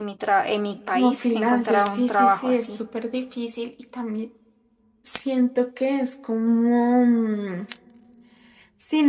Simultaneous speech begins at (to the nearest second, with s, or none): 1 s